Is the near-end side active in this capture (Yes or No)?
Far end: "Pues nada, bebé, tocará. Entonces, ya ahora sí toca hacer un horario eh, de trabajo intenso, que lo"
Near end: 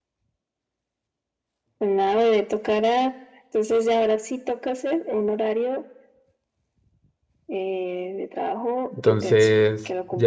Yes